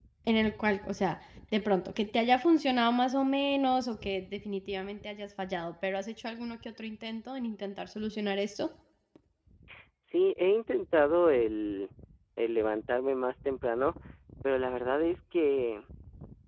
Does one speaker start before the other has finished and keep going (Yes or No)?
No